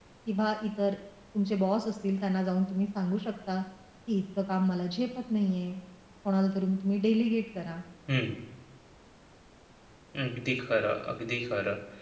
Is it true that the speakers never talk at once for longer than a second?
Yes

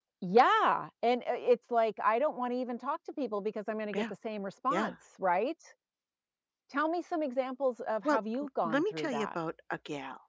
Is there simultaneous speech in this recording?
Yes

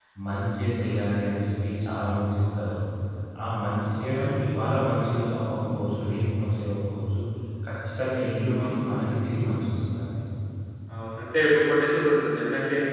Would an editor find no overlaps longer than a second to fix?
Yes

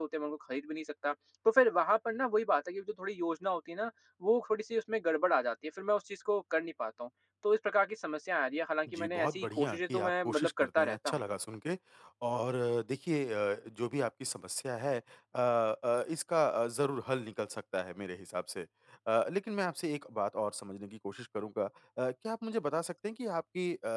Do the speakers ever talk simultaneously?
Yes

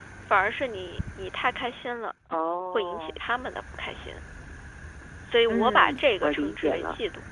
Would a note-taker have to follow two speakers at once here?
Yes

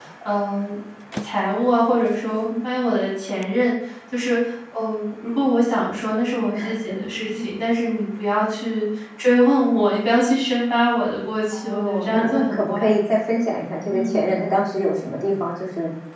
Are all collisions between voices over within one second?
No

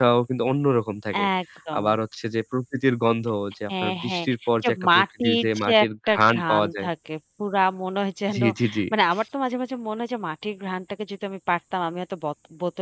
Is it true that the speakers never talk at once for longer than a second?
No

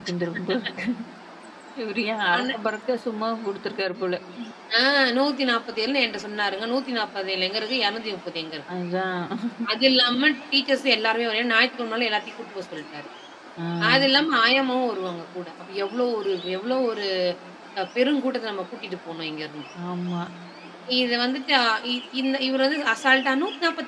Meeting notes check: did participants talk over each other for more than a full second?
No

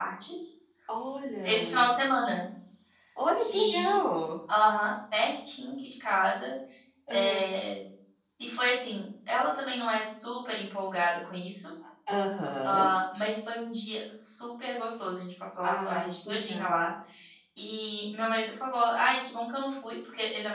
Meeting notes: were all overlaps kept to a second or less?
No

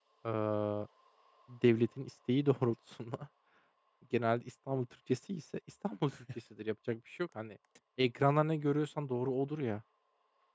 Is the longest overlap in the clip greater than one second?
No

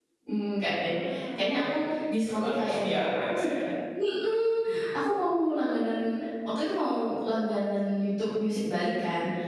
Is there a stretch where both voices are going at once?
Yes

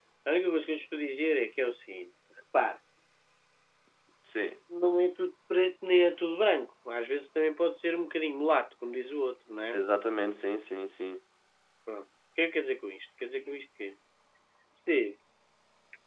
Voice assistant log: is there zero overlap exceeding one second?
Yes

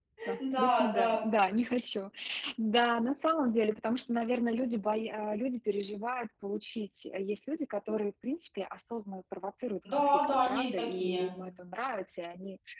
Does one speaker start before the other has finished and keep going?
Yes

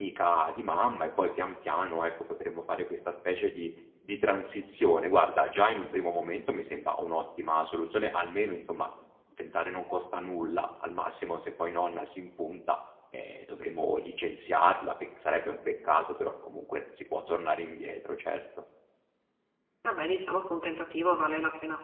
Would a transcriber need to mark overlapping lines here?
No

